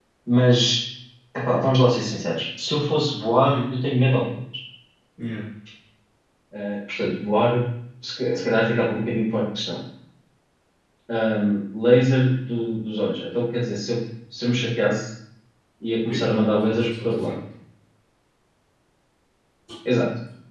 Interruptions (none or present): present